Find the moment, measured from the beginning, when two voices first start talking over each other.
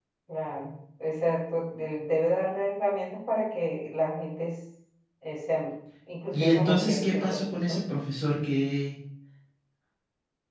6.3 s

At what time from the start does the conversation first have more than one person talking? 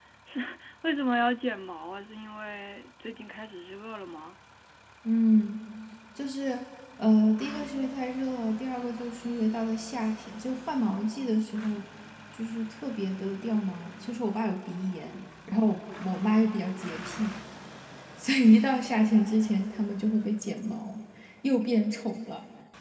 none

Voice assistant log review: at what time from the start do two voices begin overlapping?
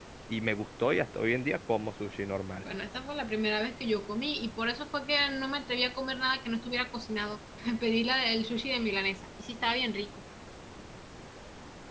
none

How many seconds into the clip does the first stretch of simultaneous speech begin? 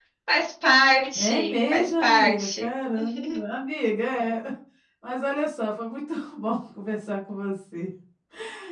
1.2 s

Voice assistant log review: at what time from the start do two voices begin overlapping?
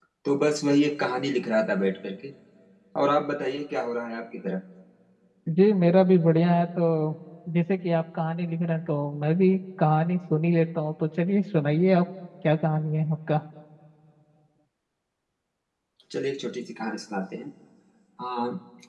none

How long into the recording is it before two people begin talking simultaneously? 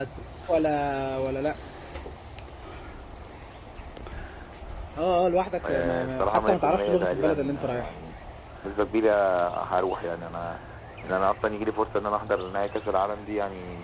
5.7 s

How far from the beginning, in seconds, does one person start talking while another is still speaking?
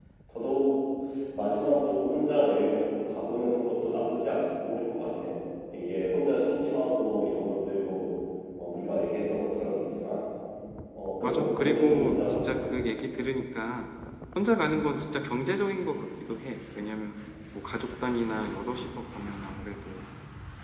11.2 s

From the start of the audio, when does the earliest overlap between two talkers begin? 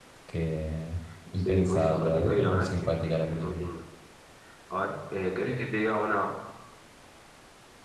1.4 s

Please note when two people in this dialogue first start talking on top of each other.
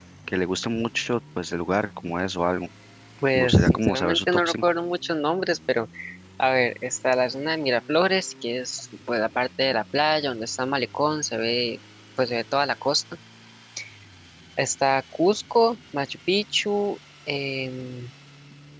3.4 s

